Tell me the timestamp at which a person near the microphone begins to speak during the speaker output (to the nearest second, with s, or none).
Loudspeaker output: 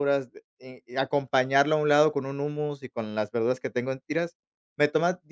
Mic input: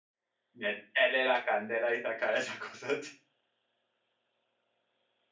1 s